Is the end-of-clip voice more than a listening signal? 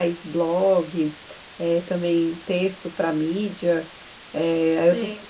No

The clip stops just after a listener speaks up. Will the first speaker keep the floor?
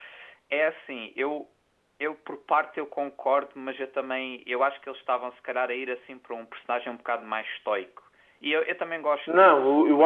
No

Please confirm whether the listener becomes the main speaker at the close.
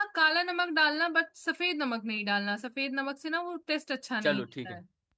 Yes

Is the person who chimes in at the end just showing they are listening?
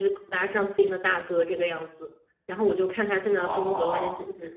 Yes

